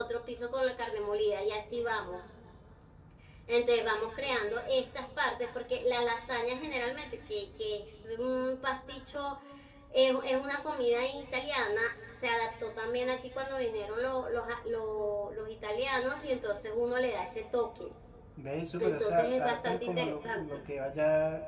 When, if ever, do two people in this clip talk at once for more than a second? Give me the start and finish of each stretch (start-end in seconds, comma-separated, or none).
18.8-20.4